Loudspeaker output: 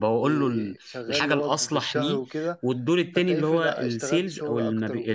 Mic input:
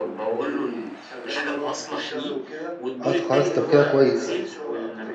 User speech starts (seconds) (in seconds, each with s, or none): 3.0 s